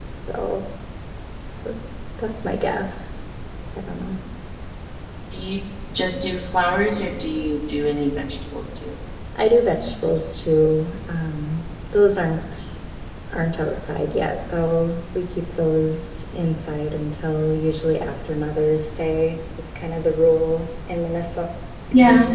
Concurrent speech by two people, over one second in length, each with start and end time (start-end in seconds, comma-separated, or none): none